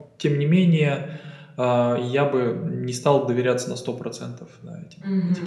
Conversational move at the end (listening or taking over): taking over